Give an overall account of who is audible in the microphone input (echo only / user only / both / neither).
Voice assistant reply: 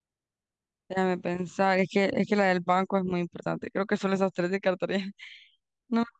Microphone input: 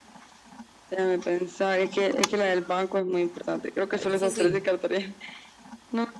both